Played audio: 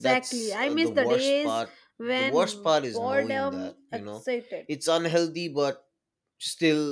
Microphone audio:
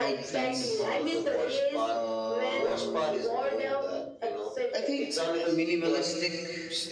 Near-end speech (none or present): present